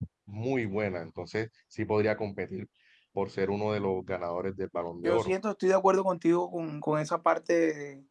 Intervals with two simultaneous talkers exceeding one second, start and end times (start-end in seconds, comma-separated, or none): none